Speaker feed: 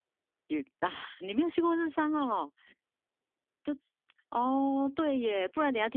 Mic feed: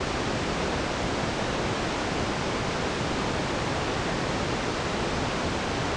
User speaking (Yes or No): No